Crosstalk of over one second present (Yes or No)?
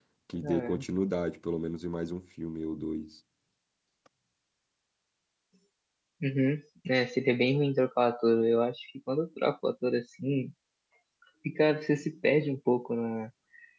No